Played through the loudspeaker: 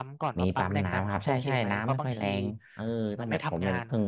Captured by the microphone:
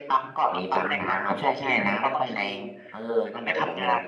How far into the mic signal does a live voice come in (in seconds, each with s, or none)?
none